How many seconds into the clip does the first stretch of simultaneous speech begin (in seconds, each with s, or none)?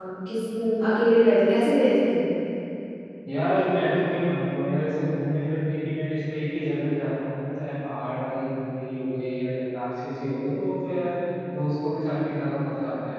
none